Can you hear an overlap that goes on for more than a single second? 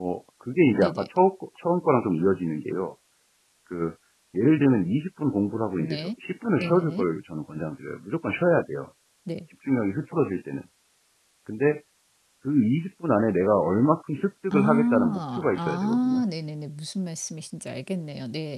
Yes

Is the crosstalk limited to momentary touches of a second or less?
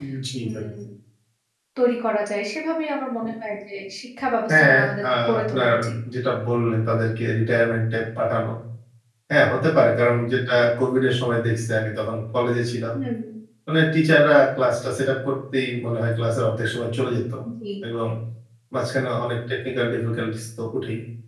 No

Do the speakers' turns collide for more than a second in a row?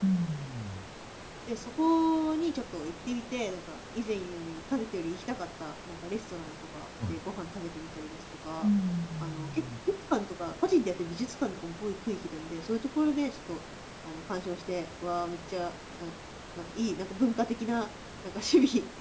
No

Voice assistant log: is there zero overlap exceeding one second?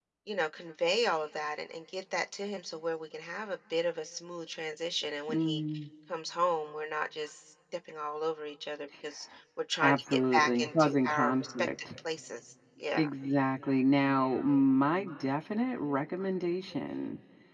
No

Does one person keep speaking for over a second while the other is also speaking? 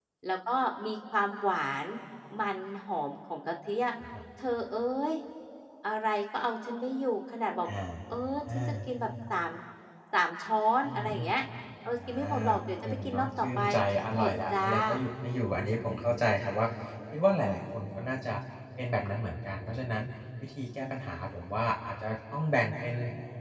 Yes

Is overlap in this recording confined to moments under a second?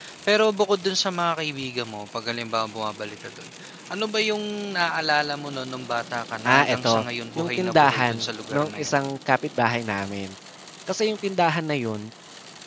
No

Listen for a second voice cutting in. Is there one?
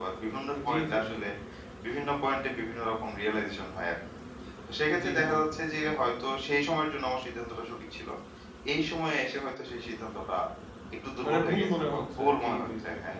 Yes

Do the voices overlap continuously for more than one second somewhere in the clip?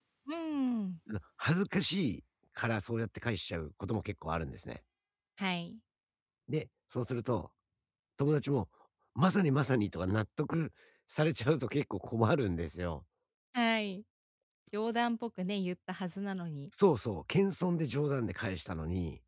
No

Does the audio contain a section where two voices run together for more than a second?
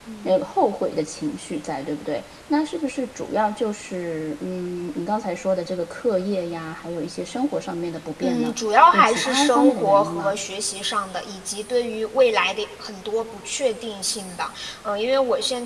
Yes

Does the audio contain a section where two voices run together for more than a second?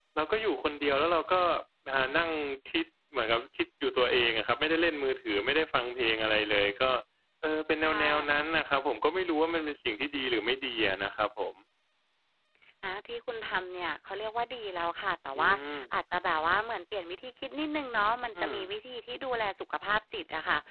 No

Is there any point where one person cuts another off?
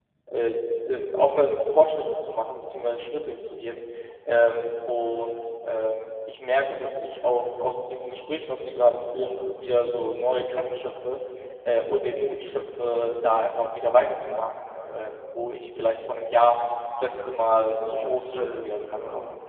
Yes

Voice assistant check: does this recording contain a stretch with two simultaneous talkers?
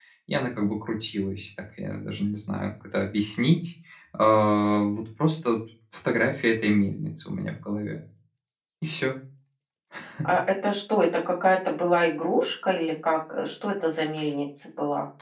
No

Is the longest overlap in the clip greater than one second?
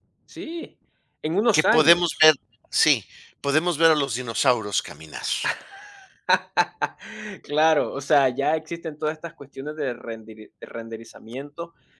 No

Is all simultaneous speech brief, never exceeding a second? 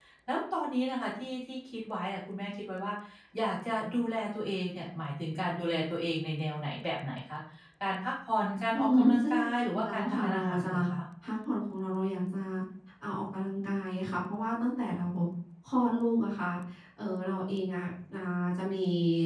No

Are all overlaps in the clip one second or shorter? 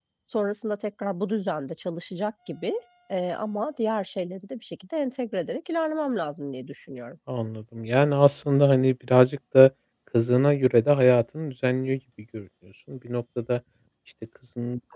Yes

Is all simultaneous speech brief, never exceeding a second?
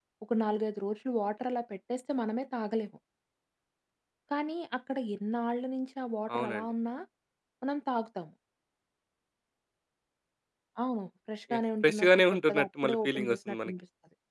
No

